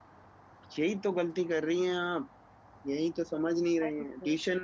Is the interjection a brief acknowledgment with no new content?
Yes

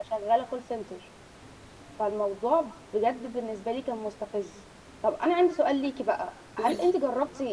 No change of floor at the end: Yes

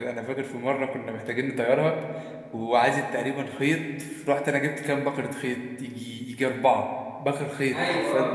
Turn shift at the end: No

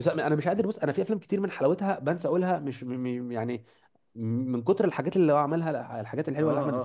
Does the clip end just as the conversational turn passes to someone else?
Yes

